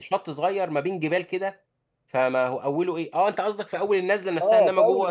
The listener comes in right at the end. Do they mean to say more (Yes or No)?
Yes